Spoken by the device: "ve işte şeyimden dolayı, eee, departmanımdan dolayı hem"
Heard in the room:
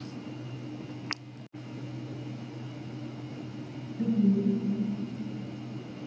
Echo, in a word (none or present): none